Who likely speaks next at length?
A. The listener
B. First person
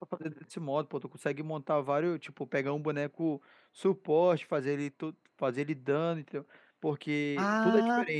A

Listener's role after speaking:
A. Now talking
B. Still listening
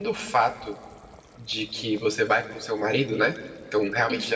B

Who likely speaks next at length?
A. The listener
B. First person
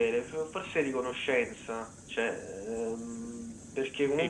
A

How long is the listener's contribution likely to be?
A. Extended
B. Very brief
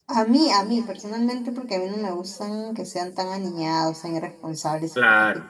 B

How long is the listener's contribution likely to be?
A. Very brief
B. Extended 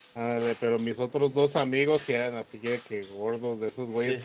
A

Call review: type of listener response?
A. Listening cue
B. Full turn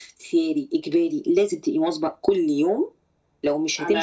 A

